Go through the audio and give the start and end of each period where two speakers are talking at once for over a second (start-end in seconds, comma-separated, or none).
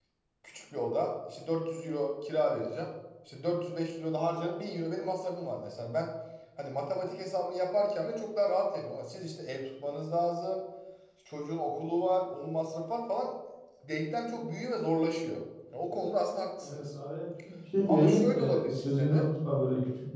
17.9-19.3